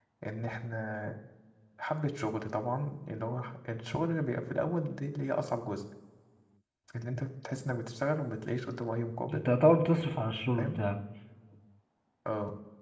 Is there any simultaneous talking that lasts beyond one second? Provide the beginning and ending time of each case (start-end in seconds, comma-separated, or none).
none